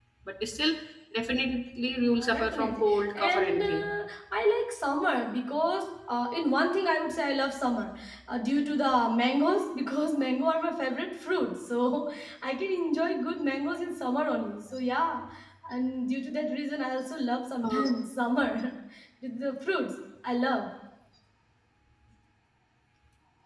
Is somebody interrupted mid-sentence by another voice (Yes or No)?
Yes